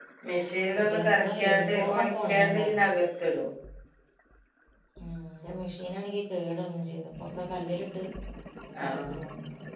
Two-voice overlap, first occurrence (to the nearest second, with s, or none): 1 s